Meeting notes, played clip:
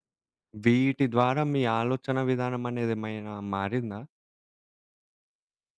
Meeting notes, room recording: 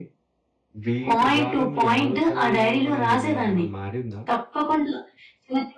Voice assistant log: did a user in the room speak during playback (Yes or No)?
Yes